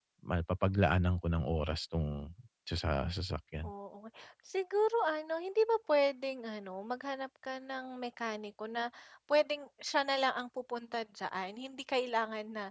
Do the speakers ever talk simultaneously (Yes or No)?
No